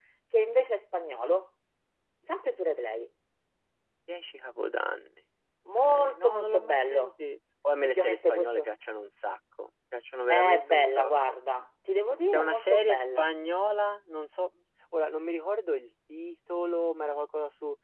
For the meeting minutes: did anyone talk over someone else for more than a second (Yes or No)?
Yes